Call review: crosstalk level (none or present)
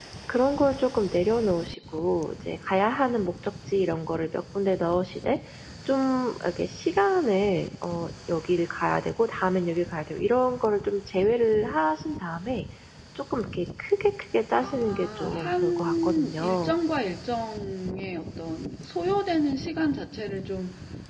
present